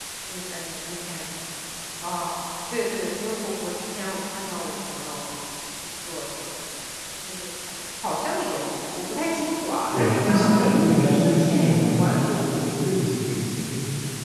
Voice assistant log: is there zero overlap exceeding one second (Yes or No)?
No